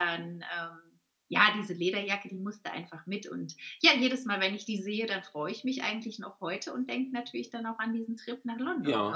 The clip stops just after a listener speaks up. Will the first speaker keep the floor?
No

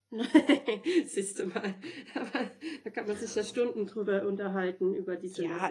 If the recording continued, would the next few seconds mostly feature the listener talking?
Yes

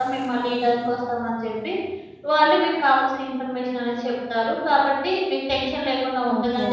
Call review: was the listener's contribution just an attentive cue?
Yes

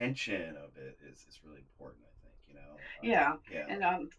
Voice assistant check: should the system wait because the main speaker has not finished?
No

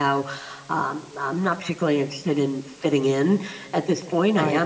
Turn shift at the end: No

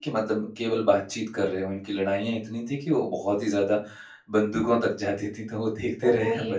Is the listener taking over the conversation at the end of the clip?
Yes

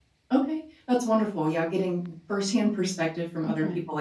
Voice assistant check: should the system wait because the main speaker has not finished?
Yes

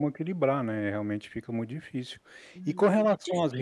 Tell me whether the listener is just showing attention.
No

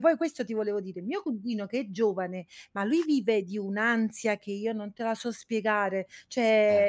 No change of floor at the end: Yes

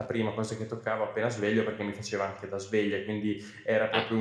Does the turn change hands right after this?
No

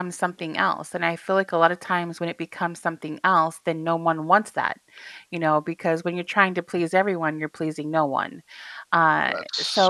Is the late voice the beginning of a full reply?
No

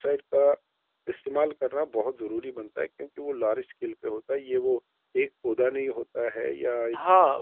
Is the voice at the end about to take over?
Yes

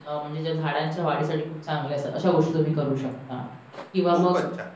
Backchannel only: No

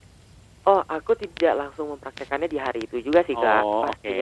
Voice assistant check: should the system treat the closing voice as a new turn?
No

